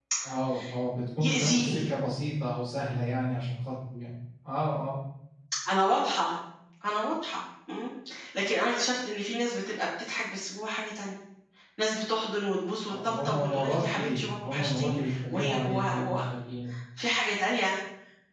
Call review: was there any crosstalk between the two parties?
Yes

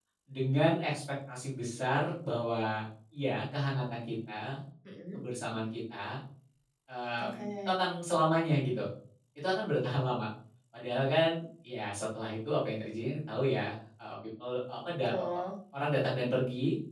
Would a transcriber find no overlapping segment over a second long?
Yes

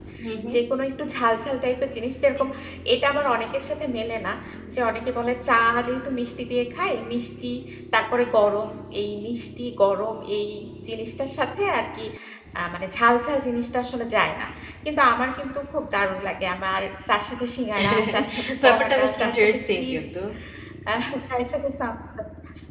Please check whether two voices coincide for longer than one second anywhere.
Yes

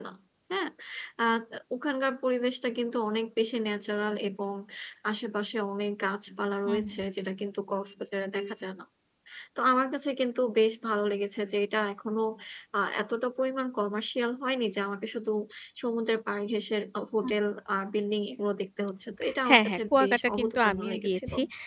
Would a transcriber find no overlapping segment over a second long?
No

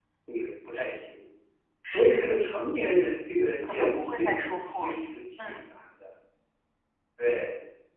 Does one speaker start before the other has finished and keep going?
Yes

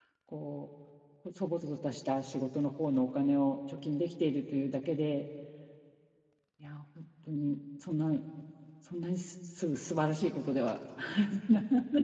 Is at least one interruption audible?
No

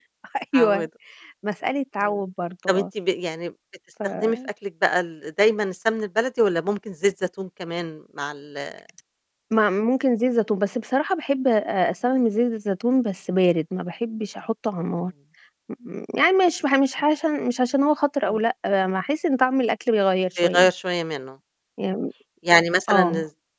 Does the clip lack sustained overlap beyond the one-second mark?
Yes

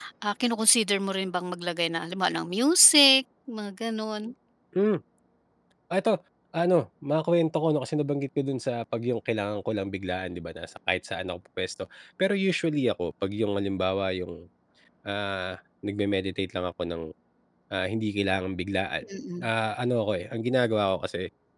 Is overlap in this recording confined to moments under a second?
Yes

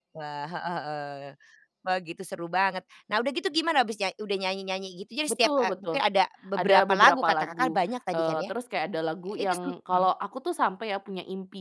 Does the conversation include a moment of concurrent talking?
Yes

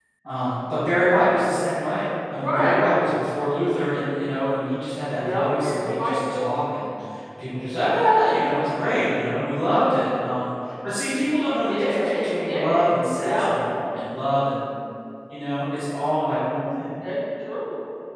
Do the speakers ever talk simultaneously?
Yes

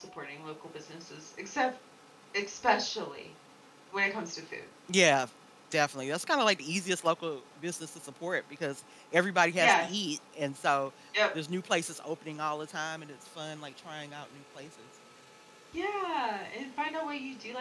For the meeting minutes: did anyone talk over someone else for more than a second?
No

